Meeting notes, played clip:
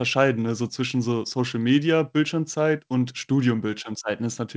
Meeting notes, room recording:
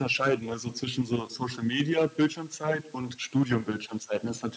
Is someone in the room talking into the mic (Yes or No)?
No